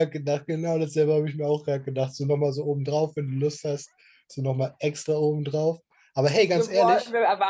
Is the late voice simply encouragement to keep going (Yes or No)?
No